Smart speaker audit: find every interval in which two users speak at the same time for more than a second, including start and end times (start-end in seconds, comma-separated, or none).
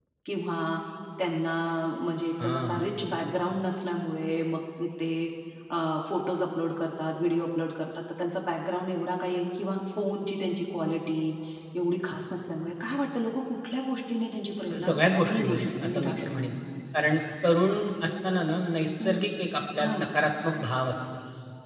14.7-16.3